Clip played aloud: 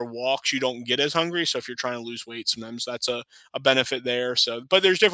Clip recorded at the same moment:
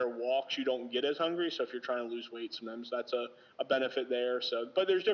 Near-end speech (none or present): none